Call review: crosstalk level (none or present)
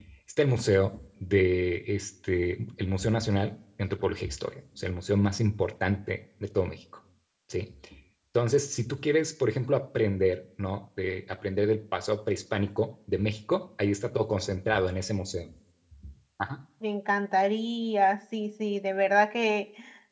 none